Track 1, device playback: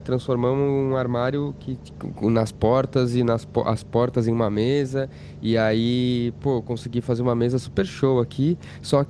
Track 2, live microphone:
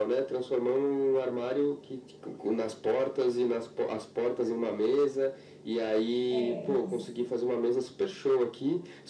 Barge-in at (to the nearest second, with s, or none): 6 s